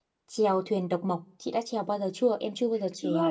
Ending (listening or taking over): taking over